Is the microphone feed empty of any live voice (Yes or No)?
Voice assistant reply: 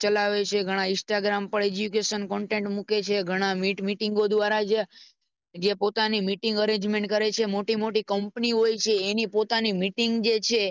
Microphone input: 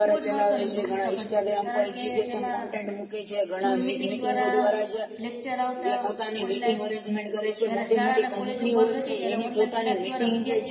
No